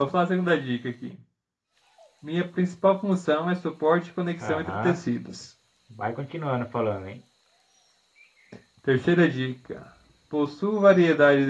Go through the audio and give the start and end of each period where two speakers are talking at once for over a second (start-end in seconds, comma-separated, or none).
none